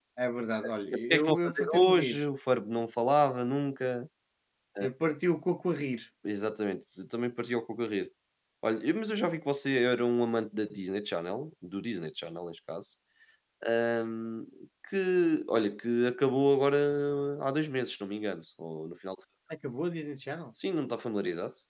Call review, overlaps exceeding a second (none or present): present